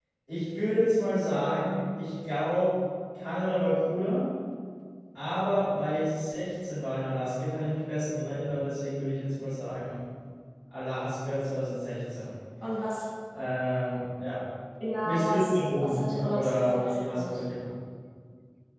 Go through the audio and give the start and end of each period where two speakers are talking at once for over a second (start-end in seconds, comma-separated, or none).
15.0-17.4